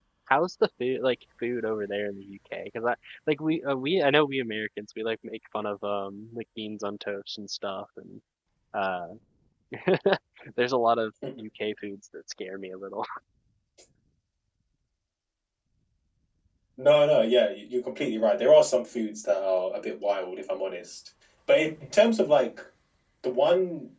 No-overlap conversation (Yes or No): Yes